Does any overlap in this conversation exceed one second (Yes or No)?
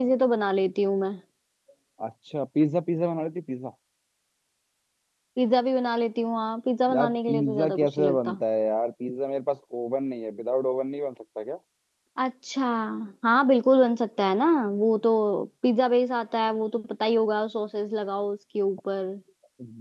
Yes